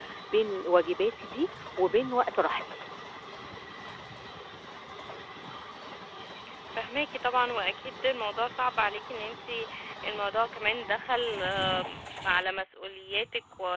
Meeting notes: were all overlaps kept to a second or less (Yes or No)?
Yes